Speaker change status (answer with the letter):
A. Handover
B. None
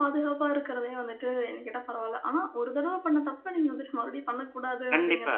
A